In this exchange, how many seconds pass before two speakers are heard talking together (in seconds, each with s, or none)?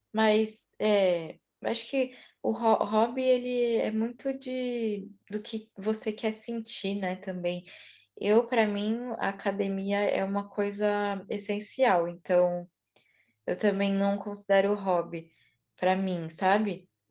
none